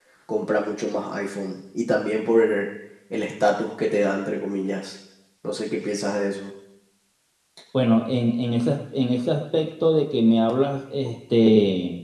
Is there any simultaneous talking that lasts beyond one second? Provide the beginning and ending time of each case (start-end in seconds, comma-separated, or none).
none